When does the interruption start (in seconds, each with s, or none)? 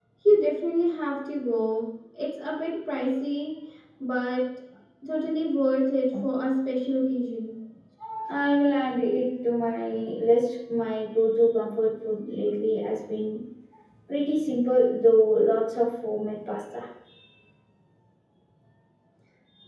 none